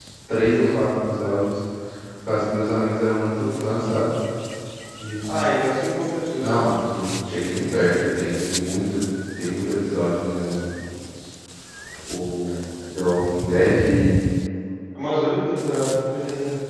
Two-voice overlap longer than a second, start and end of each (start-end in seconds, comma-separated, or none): none